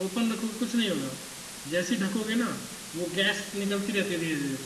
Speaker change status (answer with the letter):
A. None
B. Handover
A